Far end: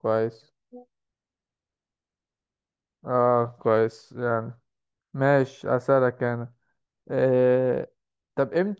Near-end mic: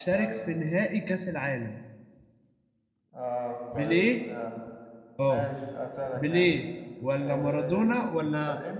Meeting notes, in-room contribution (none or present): present